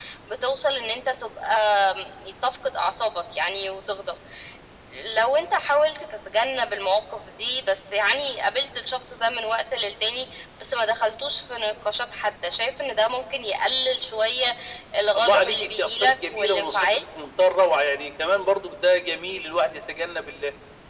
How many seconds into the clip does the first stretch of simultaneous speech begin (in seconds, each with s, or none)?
15.2 s